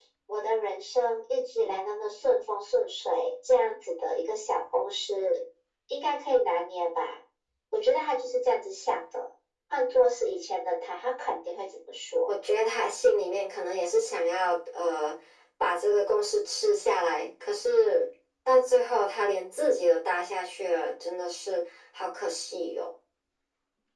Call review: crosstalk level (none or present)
none